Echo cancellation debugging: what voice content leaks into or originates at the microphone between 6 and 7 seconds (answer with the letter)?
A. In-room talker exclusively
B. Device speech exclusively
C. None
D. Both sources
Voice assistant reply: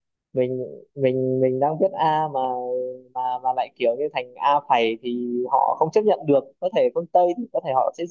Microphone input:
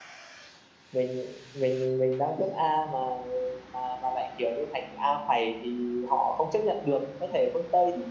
B